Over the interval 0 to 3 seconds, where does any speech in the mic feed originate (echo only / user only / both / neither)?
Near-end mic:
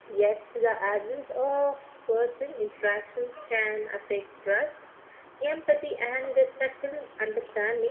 echo only